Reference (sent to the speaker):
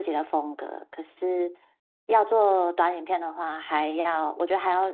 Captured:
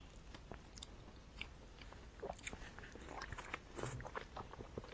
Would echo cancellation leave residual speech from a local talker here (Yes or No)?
No